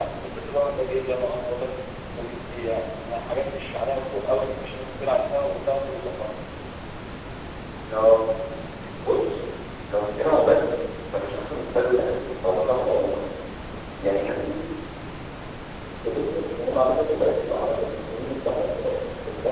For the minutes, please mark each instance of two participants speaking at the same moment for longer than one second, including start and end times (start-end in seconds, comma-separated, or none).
none